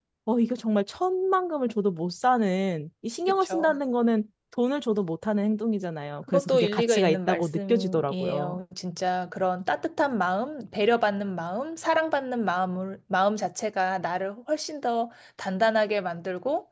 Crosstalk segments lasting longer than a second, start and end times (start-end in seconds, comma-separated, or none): 6.3-8.6